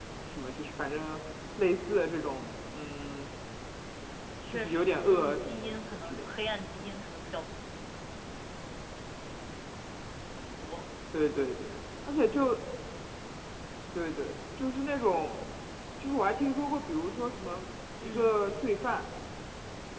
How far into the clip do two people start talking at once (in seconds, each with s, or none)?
4.5 s